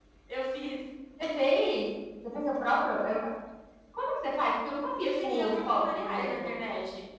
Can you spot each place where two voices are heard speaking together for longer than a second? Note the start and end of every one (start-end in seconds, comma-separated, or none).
5.0-6.5